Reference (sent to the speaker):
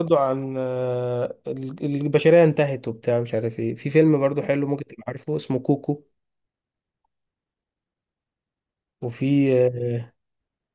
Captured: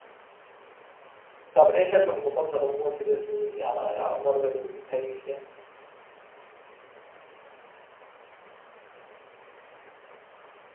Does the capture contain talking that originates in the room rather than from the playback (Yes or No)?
Yes